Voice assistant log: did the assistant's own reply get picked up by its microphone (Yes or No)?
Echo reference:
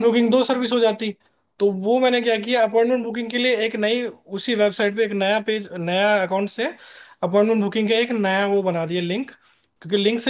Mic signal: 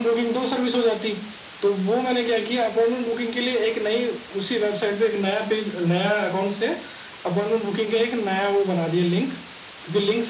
Yes